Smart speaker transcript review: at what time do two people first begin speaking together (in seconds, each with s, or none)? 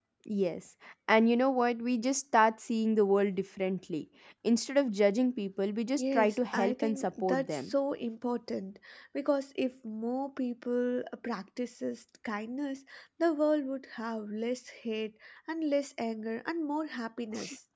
6.0 s